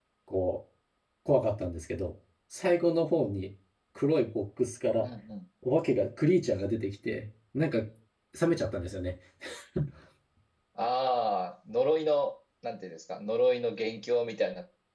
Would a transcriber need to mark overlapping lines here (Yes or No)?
No